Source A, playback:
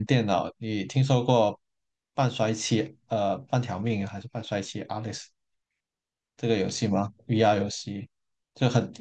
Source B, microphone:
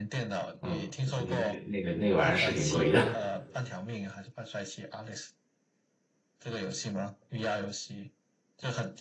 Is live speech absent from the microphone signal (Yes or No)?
No